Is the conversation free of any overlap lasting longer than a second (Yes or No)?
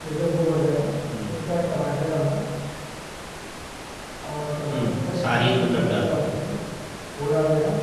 No